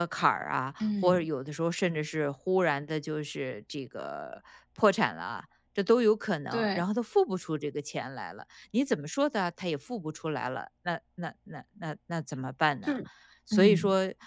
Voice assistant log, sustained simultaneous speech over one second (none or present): none